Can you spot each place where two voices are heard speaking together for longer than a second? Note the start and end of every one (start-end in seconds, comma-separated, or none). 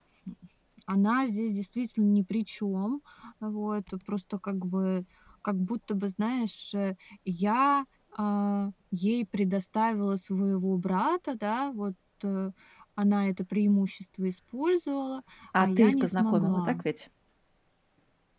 15.6-16.8